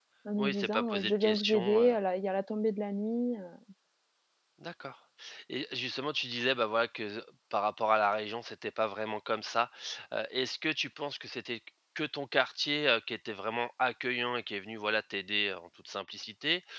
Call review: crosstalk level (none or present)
present